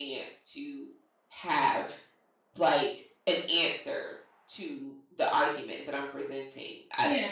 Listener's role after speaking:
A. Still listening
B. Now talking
B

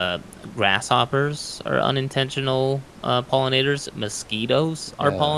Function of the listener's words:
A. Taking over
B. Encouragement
B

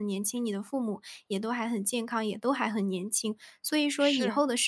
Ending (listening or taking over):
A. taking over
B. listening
B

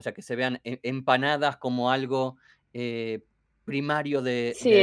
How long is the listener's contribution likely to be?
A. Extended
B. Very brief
A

